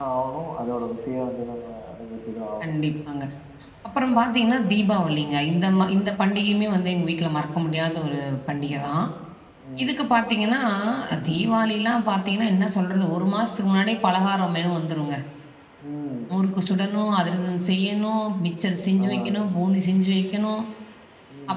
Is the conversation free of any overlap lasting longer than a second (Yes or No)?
Yes